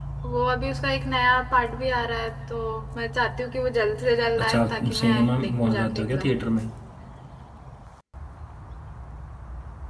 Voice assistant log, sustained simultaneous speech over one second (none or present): present